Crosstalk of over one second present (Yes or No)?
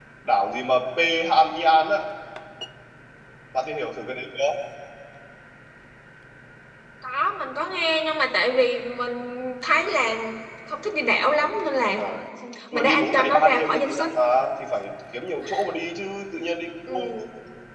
Yes